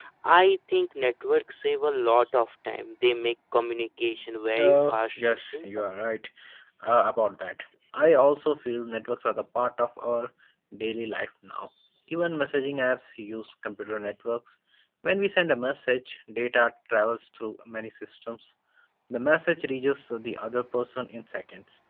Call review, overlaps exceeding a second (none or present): present